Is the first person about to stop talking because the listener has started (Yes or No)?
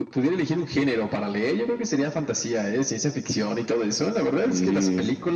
No